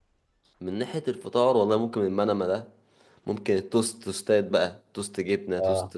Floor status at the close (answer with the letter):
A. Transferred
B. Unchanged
B